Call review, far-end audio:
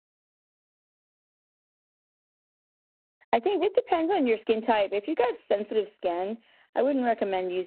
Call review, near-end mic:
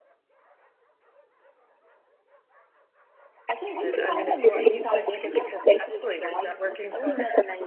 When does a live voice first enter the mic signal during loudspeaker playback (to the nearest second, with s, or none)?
4 s